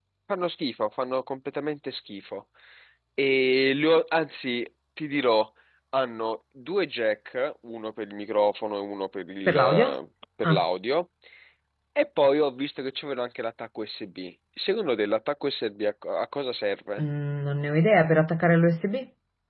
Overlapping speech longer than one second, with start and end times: none

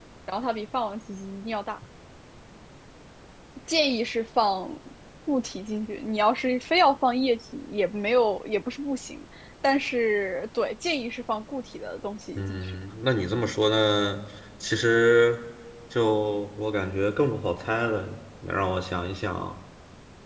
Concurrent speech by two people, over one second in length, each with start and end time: none

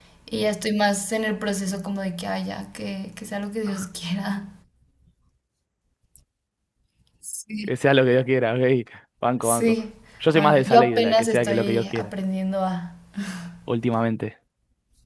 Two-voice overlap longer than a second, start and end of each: 10.3-12.1

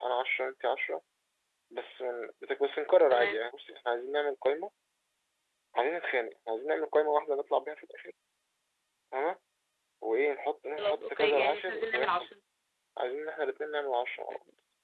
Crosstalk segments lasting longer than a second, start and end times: 10.8-12.1

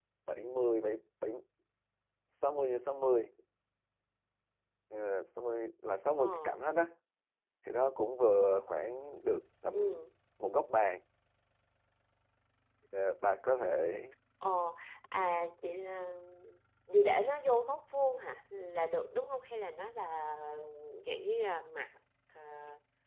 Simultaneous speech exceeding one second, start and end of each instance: none

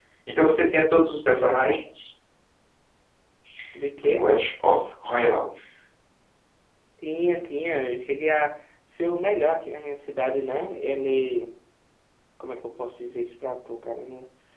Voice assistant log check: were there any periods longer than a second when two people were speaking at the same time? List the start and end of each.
none

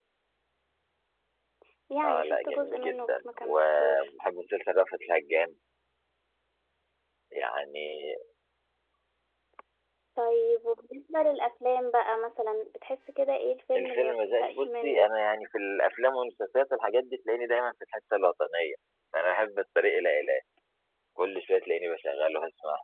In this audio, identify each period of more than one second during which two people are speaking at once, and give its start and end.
2.0-4.1, 13.8-15.1

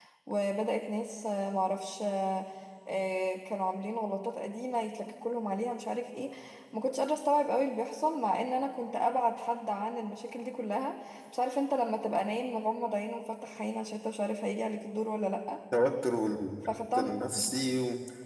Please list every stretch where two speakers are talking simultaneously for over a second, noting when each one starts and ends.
none

